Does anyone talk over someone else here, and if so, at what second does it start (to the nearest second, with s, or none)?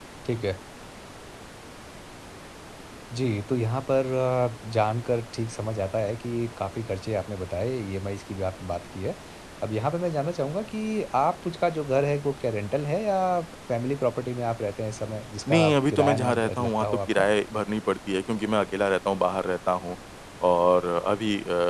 15 s